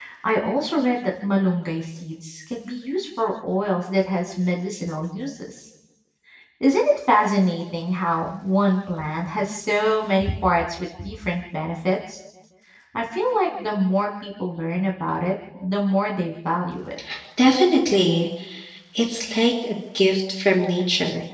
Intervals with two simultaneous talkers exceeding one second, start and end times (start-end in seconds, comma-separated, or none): none